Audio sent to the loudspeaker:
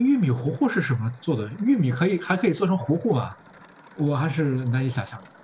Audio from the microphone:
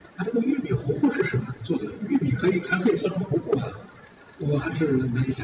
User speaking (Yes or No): No